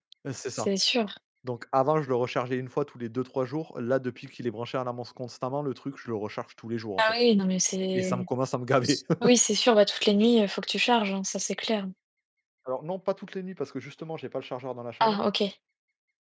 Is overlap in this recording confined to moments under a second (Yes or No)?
Yes